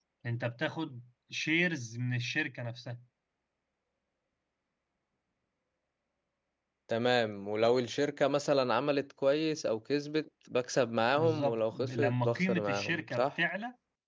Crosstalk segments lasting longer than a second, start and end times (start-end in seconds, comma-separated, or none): 11.1-13.3